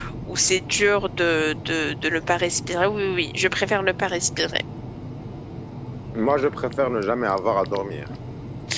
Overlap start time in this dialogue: none

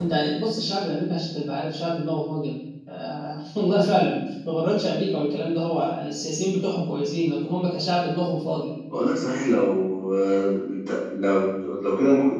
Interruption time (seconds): none

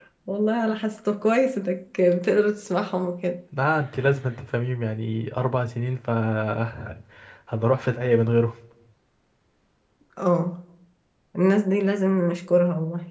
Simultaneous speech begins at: none

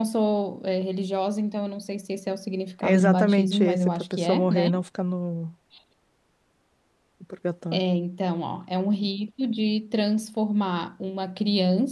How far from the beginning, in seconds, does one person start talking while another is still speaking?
2.8 s

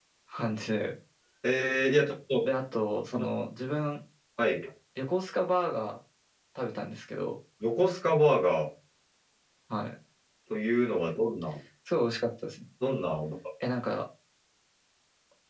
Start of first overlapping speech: none

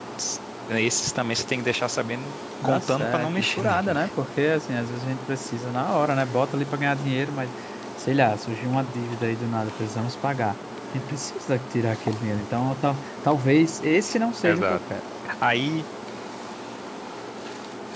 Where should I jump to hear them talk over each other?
2.6 s

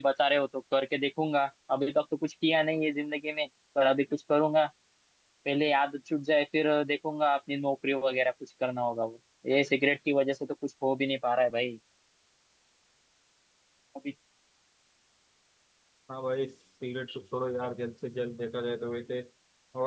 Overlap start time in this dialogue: none

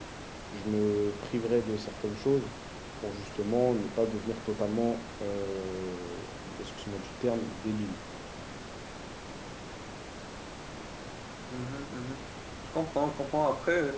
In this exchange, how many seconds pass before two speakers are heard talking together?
none

